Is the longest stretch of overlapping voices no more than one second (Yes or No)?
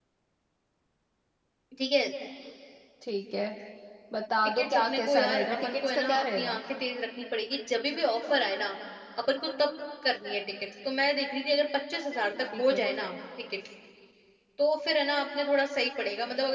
No